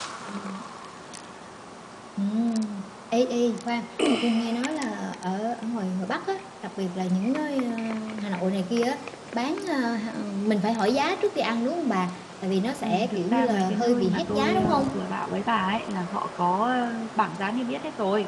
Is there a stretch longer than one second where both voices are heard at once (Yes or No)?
Yes